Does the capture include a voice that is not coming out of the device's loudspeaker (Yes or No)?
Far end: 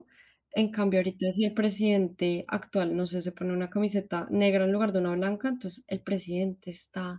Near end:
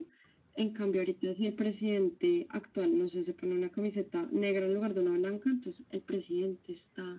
No